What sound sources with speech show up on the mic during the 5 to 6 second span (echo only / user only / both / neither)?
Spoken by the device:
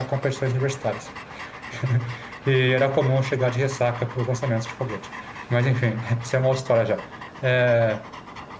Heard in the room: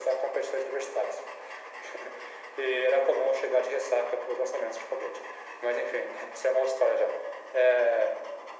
echo only